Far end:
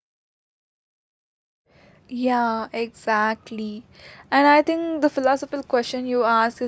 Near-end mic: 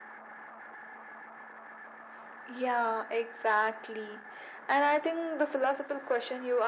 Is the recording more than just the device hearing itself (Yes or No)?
No